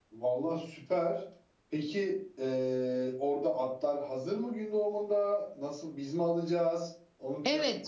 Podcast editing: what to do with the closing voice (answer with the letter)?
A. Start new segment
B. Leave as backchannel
A